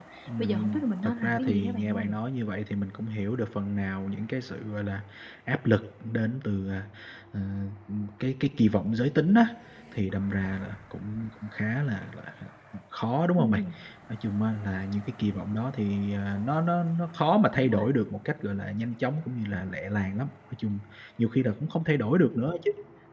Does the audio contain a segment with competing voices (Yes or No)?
Yes